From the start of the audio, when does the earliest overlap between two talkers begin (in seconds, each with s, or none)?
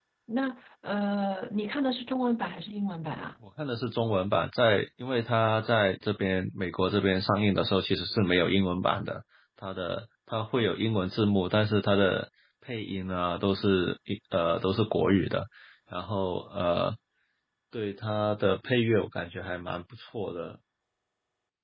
none